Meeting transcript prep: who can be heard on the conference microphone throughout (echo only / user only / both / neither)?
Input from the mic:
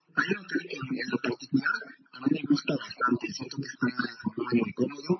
echo only